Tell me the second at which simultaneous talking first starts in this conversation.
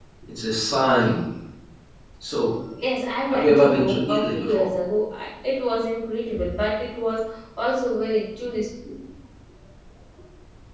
3.3 s

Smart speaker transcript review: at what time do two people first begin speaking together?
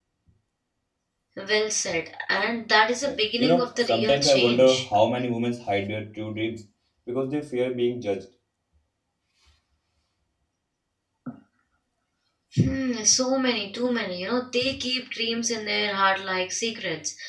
3.0 s

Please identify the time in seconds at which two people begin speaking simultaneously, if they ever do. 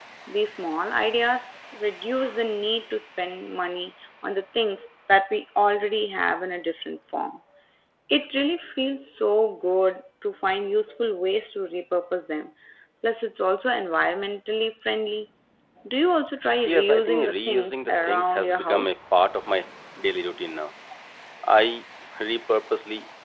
16.7 s

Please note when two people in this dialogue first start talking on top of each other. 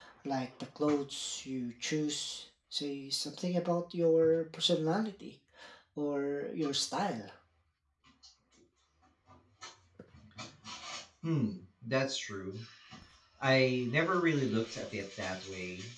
none

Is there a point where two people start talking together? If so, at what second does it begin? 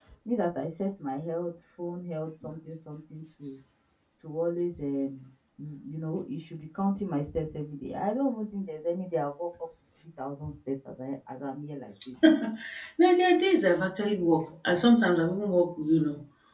none

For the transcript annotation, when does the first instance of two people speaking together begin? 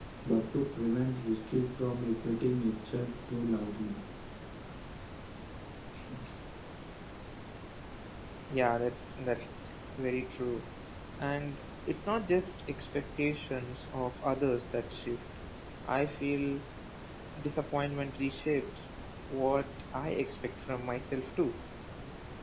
none

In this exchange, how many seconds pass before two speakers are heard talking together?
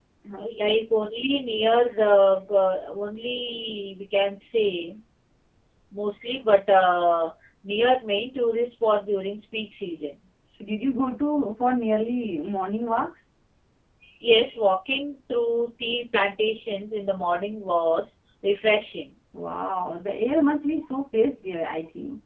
none

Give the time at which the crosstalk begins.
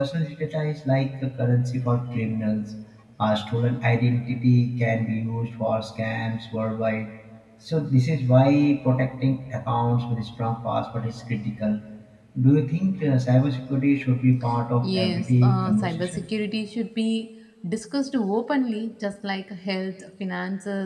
14.8 s

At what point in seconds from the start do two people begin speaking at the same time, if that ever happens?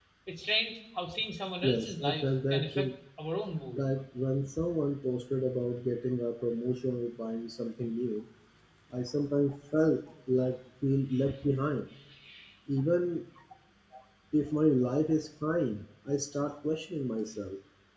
1.6 s

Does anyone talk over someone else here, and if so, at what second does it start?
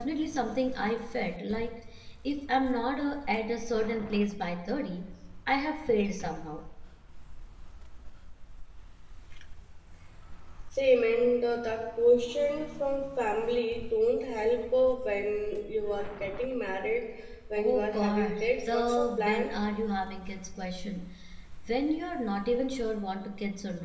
17.6 s

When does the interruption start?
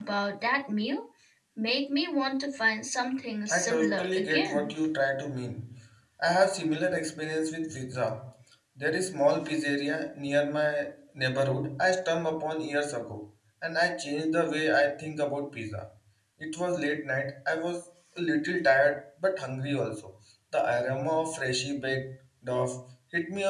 3.5 s

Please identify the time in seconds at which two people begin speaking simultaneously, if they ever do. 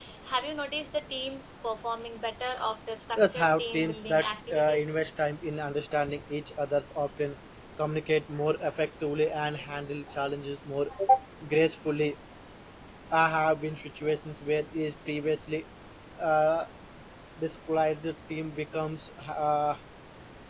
3.1 s

